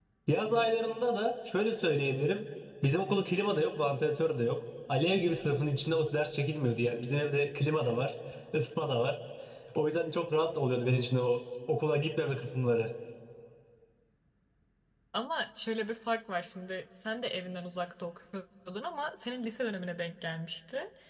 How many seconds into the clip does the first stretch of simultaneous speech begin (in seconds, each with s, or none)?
none